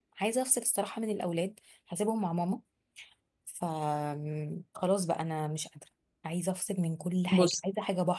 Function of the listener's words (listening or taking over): listening